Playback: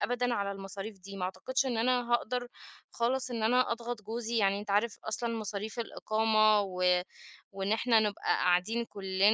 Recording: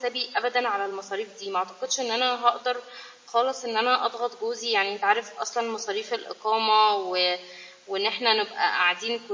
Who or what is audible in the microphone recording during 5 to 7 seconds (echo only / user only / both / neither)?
echo only